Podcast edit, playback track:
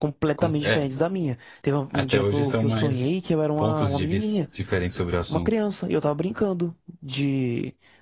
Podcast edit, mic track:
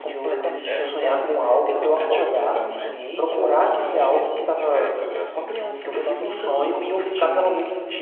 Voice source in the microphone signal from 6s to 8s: both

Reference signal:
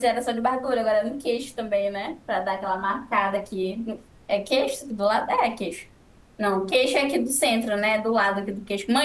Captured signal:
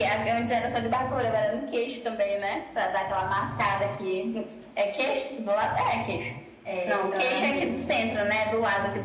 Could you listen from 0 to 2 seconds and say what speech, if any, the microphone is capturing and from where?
echo only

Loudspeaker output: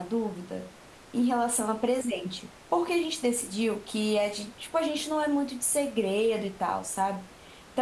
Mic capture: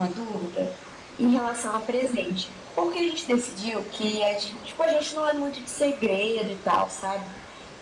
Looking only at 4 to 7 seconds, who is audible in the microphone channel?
echo only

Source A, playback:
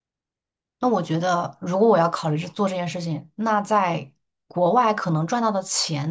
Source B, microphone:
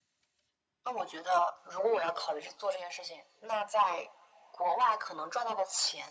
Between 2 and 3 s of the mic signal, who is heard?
echo only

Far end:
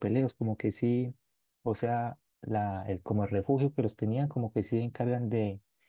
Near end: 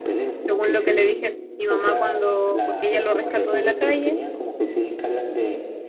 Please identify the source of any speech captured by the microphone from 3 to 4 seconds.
both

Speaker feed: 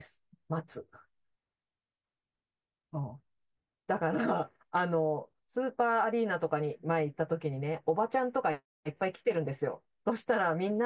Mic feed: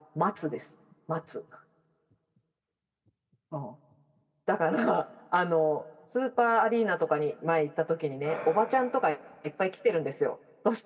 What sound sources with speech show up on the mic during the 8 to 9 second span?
both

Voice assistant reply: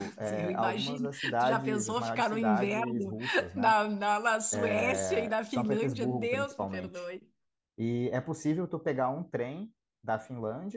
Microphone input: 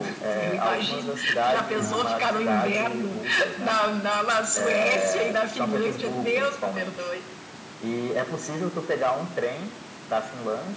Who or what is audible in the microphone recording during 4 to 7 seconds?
echo only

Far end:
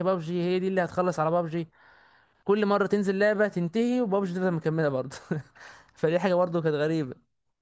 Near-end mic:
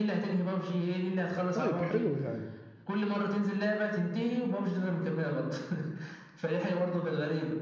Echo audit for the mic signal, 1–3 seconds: both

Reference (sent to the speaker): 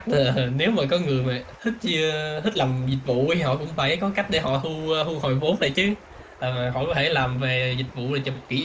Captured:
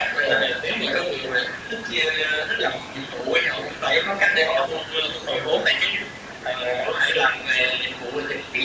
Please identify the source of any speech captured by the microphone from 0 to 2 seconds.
echo only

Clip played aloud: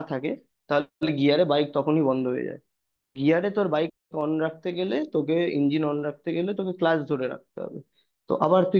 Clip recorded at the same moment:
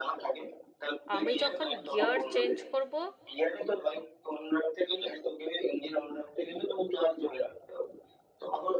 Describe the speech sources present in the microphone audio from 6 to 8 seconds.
echo only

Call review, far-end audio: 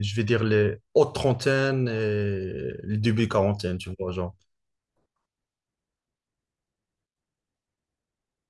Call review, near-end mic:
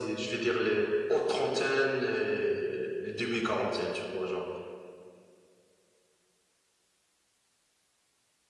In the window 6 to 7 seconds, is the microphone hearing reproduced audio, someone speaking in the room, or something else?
neither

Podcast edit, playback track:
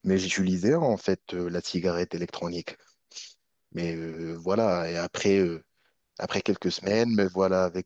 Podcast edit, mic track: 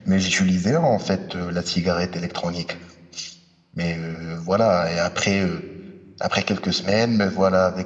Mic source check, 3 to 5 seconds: echo only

